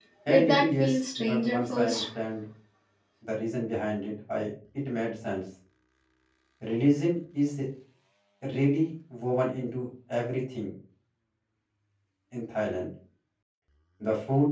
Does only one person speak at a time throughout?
No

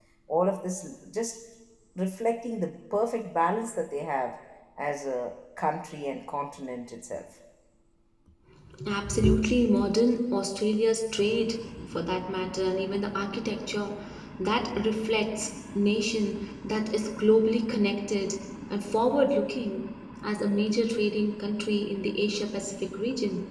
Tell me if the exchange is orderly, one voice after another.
Yes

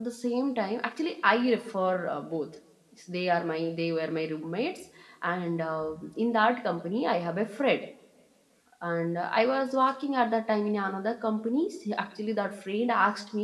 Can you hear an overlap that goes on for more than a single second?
No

